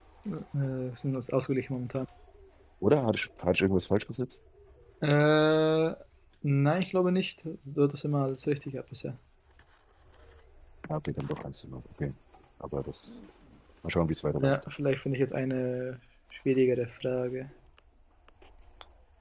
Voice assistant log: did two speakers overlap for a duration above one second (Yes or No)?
No